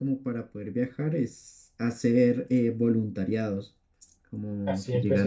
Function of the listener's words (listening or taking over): taking over